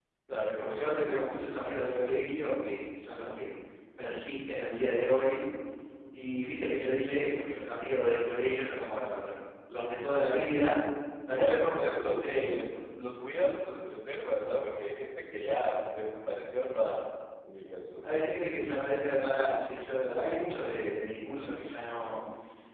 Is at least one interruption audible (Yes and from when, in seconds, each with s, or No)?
Yes, from 0.6 s